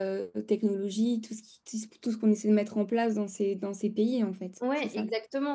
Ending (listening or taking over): taking over